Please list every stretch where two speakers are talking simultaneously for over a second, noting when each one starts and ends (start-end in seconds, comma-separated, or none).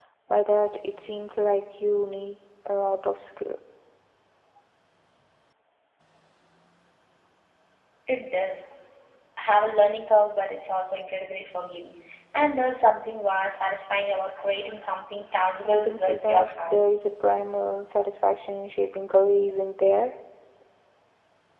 15.6-16.9